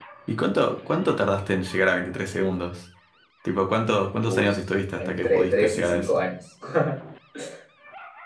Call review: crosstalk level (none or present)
present